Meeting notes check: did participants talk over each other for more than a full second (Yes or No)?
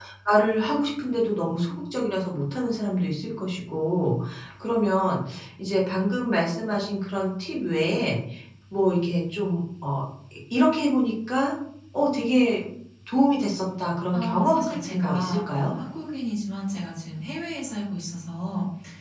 Yes